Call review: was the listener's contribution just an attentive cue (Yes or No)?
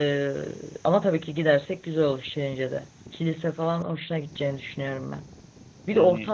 Yes